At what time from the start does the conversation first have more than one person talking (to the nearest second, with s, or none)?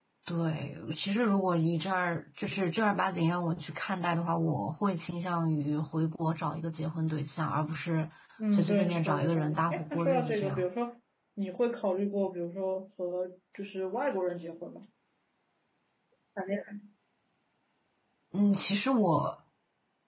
9 s